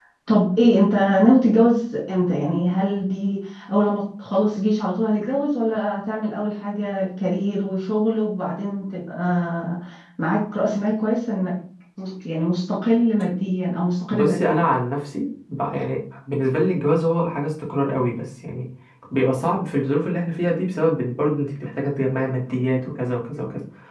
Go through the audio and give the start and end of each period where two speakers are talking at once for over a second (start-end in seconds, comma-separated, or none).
none